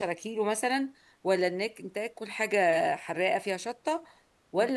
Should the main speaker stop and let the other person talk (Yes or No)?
No